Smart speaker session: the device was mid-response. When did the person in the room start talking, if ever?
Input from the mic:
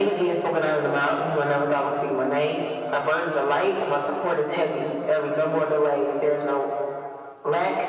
none

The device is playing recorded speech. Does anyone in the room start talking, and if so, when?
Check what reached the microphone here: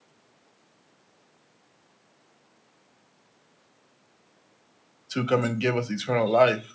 5.1 s

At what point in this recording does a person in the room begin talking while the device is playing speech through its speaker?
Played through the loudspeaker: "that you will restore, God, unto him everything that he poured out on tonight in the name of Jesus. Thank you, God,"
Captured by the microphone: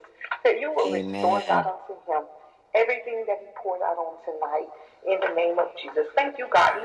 0.8 s

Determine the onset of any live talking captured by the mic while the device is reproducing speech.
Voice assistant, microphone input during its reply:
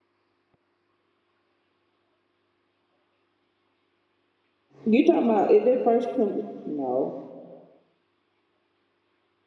4.8 s

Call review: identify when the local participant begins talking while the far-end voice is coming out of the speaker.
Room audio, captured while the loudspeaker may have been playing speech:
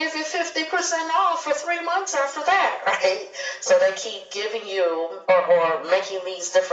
none

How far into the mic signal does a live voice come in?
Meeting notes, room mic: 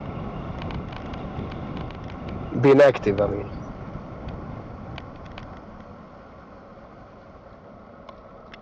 2.6 s

